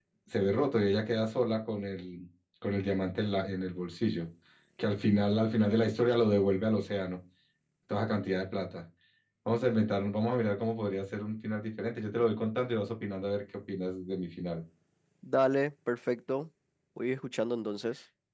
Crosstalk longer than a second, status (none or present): none